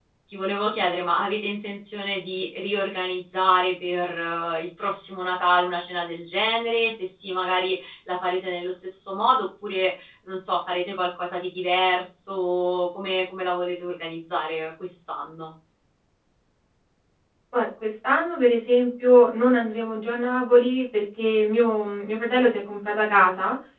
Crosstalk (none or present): none